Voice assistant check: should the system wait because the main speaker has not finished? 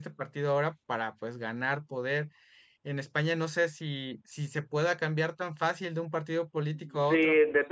No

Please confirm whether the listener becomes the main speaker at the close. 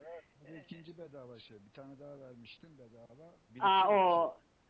Yes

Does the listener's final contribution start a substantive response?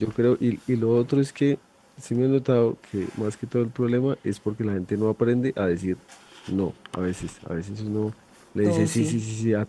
No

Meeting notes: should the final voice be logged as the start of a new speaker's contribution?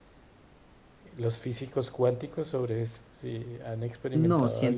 Yes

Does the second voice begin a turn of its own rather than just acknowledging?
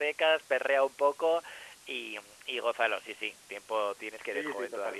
Yes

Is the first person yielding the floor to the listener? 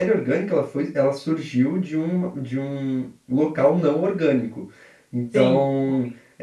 Yes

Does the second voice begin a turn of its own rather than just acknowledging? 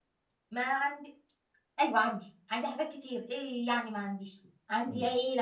No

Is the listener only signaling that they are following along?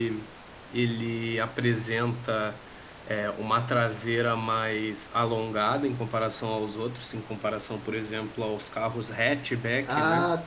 No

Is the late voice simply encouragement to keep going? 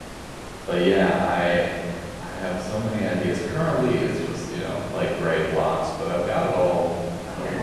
No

